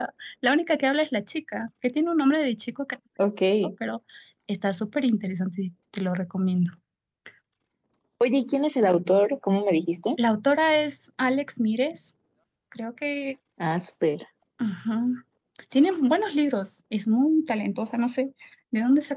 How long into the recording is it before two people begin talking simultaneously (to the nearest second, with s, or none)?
none